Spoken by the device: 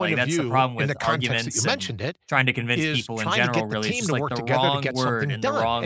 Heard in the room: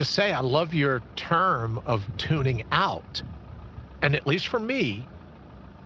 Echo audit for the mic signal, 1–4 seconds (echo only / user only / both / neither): user only